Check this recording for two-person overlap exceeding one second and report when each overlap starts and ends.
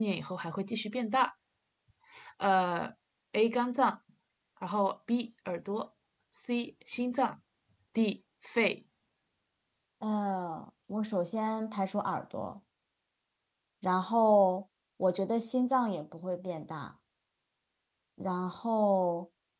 none

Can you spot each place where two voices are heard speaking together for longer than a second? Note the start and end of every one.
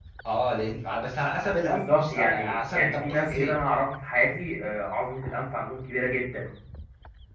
1.6-3.5

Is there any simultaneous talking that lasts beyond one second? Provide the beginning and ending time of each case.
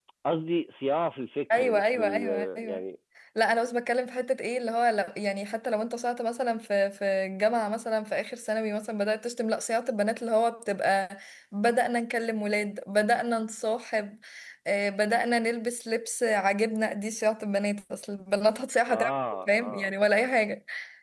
1.5-2.8

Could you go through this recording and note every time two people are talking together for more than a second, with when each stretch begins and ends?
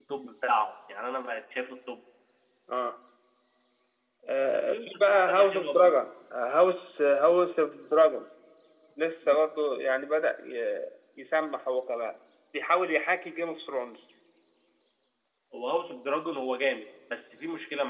4.5-5.9

